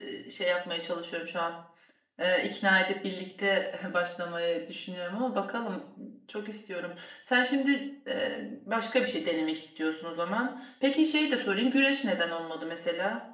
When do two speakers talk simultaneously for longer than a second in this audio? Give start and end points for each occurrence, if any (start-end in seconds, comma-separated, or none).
none